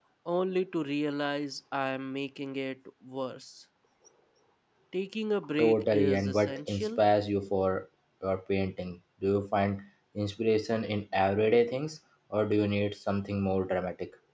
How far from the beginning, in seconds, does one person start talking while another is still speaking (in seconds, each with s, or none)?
5.6 s